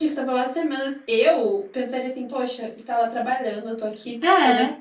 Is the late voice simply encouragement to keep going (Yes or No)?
Yes